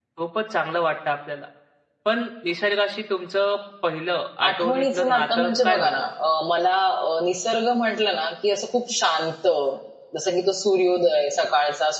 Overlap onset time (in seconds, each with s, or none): 4.4 s